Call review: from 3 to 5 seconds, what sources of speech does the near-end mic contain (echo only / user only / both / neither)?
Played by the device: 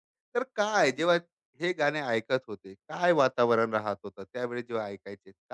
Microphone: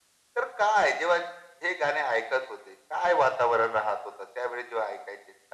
echo only